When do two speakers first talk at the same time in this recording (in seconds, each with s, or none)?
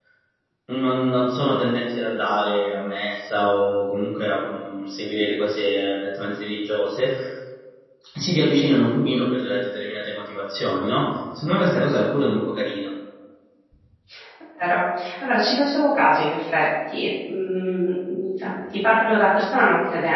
none